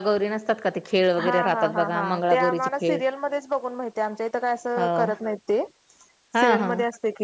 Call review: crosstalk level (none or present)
present